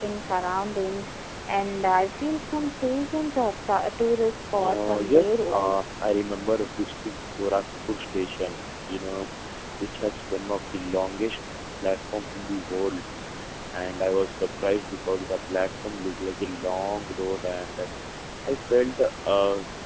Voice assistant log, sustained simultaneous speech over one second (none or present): present